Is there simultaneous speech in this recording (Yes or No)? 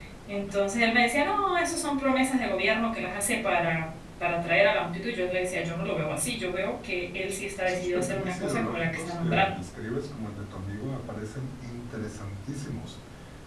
Yes